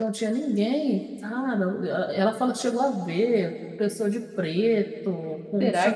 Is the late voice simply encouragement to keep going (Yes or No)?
No